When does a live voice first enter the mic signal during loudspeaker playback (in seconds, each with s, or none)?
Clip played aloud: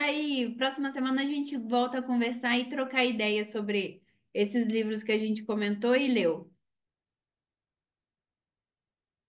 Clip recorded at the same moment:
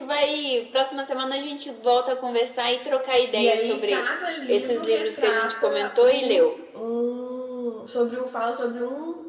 3.3 s